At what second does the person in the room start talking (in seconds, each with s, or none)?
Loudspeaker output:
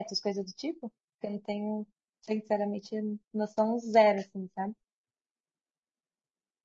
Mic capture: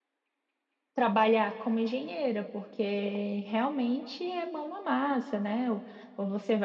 0.9 s